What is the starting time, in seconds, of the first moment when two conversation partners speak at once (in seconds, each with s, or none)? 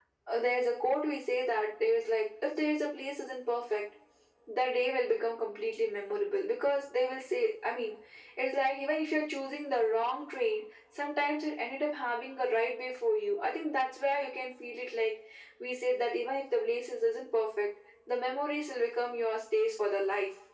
none